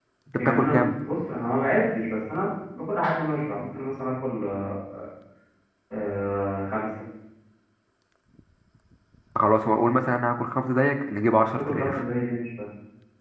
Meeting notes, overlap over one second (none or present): none